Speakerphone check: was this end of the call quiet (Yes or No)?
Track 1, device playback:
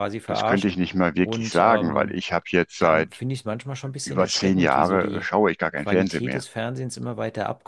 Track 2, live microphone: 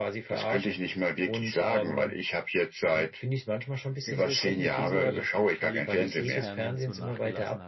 No